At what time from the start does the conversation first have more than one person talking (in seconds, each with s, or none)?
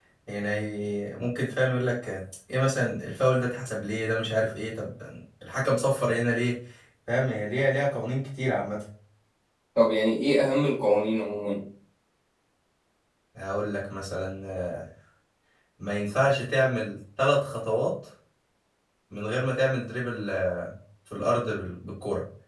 none